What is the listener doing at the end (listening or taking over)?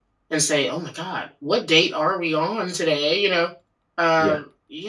listening